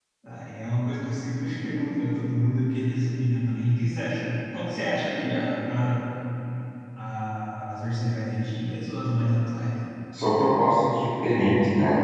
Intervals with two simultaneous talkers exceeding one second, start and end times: none

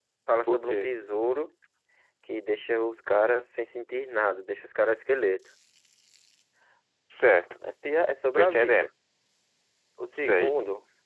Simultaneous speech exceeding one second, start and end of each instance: none

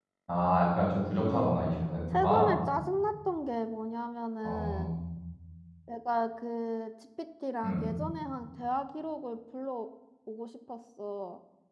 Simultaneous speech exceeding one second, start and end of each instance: none

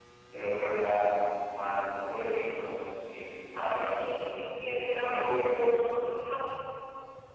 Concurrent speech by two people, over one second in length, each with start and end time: 3.5-5.8

